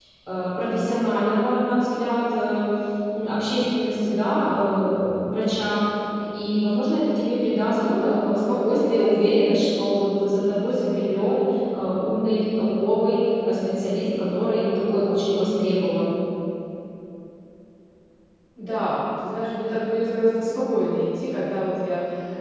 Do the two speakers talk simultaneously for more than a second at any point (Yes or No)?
No